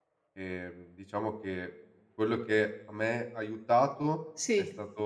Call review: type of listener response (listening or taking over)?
listening